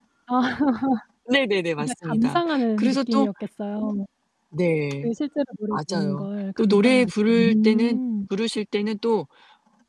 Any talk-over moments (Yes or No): Yes